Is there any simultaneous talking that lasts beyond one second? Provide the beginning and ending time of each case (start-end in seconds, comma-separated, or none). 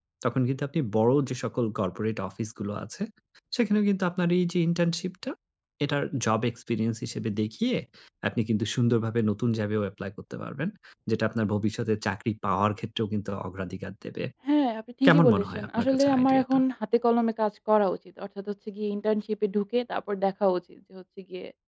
15.0-16.6